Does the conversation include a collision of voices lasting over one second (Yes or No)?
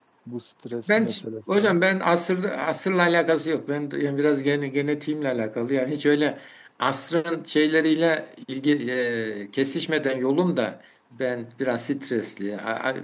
No